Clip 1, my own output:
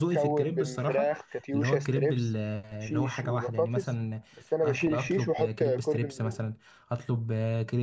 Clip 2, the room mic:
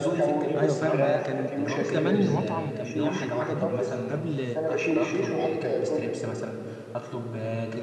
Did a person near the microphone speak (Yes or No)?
Yes